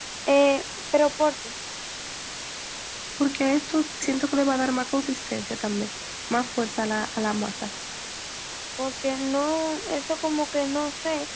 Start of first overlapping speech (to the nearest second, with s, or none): none